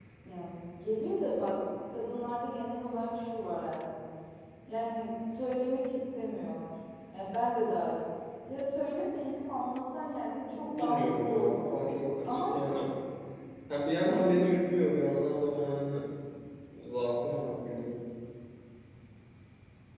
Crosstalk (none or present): present